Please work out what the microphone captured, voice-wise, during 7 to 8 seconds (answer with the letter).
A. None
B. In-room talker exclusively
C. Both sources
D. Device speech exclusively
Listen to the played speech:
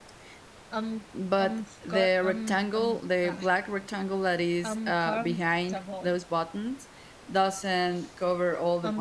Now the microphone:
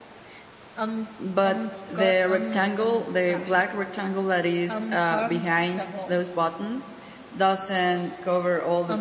D